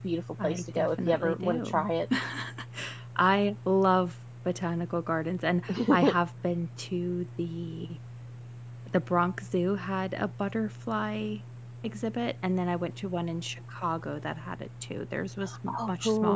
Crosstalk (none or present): present